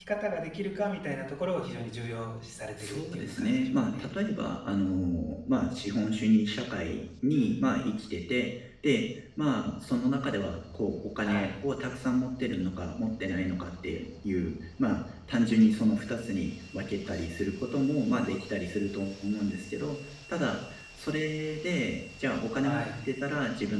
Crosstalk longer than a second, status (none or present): present